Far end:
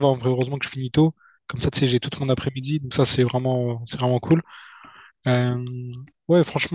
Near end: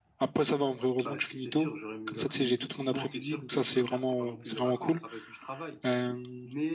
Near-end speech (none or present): present